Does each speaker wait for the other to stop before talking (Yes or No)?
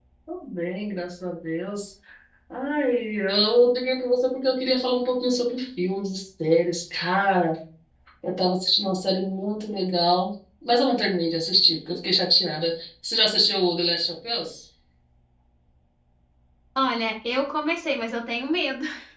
Yes